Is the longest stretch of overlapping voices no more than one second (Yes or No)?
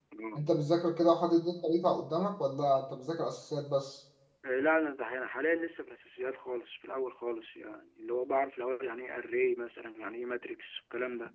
Yes